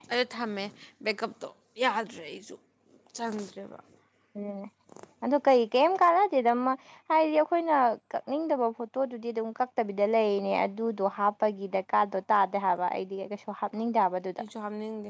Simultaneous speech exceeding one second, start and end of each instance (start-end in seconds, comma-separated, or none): none